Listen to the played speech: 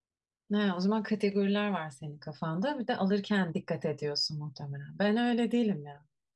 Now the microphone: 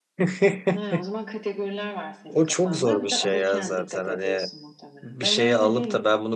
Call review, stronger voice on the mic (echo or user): user